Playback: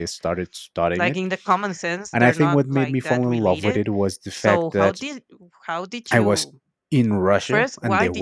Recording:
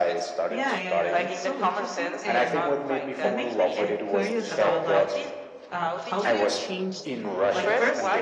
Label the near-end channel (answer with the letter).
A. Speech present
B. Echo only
A